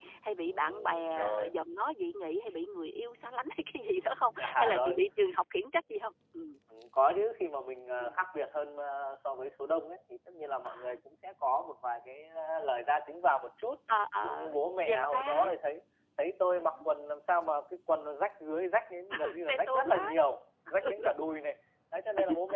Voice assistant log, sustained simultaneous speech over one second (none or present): present